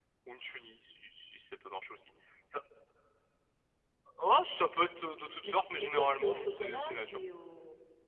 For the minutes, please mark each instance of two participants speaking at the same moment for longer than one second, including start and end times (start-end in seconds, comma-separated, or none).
5.4-7.2